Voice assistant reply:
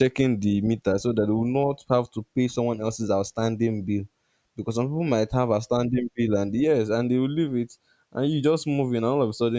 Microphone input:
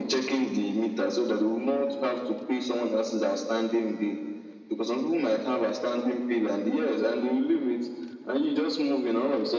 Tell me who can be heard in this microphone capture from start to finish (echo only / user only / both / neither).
echo only